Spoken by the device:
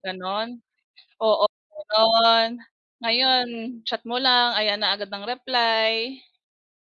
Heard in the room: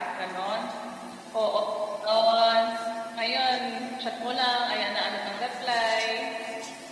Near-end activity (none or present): none